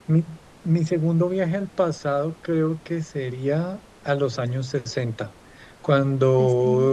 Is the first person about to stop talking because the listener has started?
No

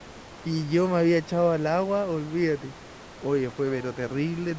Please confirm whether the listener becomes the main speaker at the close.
No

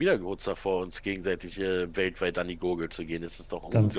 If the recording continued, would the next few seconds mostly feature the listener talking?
Yes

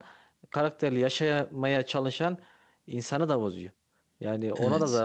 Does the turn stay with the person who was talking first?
Yes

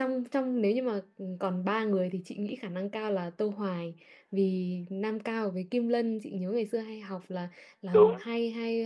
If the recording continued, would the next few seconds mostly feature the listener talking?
No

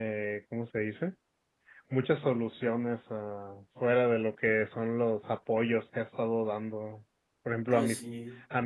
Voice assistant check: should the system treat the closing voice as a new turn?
No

